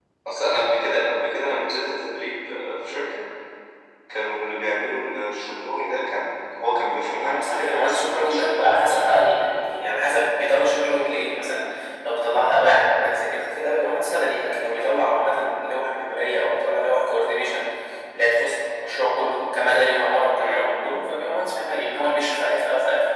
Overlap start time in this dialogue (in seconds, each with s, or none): 7.3 s